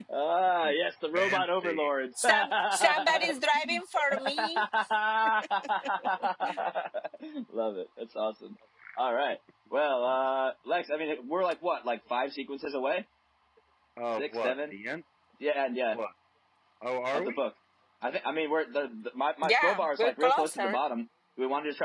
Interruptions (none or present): present